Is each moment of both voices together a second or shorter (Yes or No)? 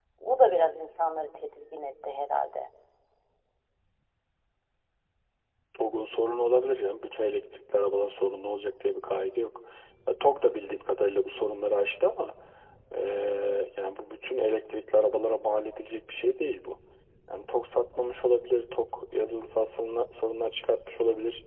Yes